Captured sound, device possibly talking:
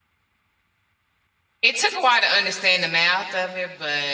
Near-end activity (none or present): present